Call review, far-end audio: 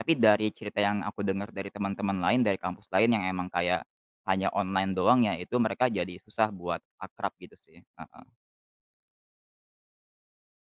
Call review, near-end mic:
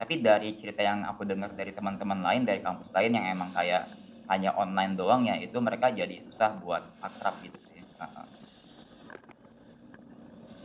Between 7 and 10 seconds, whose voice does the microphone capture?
echo only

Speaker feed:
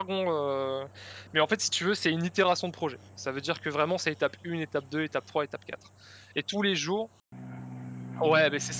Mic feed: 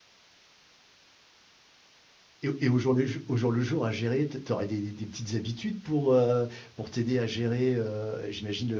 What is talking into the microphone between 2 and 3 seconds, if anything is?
user only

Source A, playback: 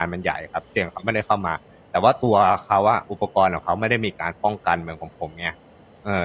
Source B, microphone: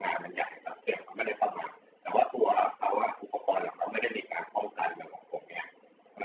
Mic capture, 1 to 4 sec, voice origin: echo only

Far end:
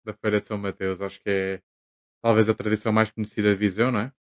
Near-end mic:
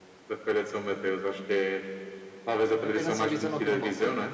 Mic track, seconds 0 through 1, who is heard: echo only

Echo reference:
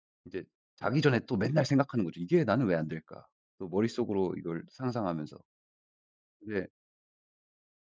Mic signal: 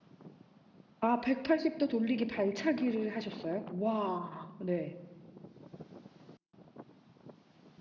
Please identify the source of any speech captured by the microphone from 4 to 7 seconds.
user only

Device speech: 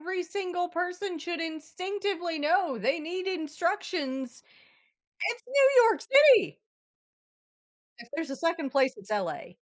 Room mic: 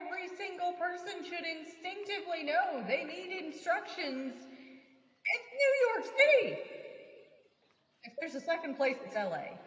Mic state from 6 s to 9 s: echo only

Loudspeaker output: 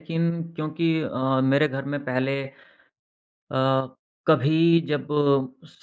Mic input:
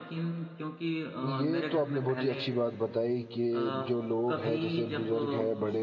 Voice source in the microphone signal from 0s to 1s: echo only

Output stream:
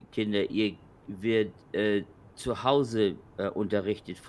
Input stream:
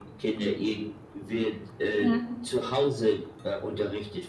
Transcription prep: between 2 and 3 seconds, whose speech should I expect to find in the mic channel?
both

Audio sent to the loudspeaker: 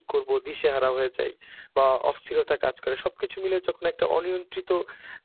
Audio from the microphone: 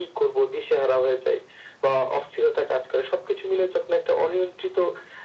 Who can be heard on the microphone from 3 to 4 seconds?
echo only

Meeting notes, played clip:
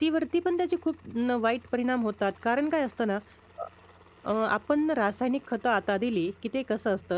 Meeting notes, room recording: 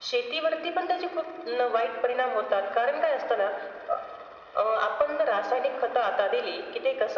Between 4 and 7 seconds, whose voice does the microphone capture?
echo only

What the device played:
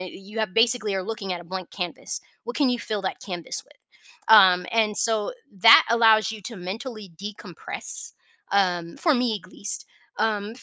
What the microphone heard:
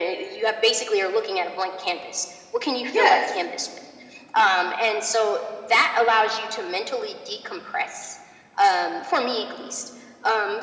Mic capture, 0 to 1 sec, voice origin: echo only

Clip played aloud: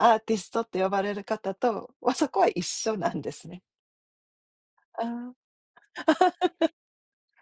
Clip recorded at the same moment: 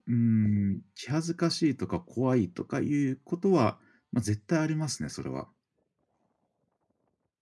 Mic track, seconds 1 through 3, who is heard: user only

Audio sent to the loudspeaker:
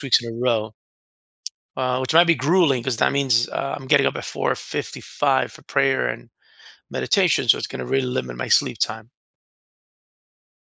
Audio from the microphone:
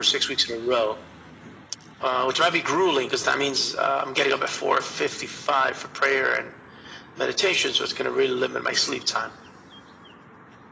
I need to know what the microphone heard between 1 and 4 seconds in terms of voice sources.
echo only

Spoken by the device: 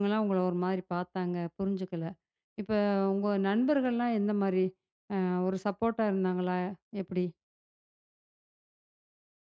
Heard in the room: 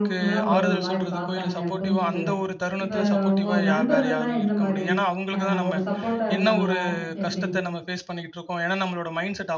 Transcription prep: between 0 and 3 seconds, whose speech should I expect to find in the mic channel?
both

